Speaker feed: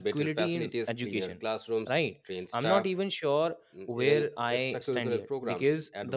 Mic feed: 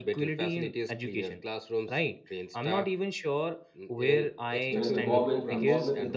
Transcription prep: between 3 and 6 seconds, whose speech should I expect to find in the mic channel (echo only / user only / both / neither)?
both